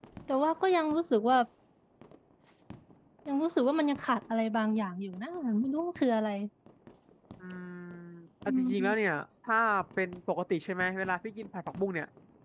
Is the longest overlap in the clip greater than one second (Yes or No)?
No